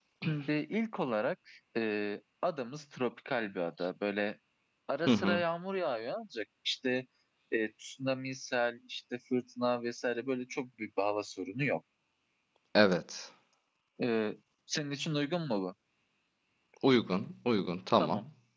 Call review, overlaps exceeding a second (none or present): none